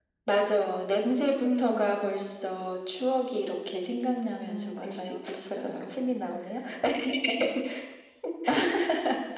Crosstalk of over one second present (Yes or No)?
Yes